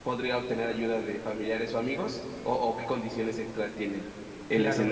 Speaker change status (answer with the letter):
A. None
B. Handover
B